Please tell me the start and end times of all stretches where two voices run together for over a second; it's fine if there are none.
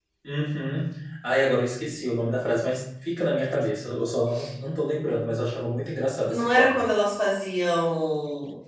none

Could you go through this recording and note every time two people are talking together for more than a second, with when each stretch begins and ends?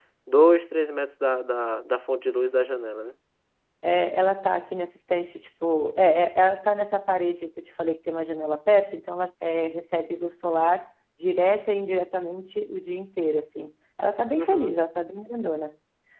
none

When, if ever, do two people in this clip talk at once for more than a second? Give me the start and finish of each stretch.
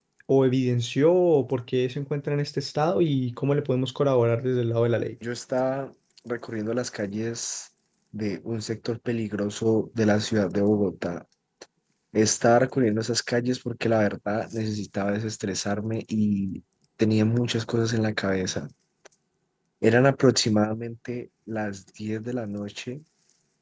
none

